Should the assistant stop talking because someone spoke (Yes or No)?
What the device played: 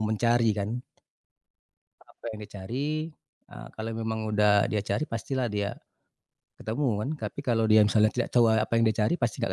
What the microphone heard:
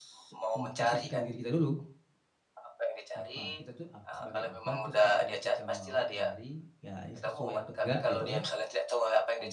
Yes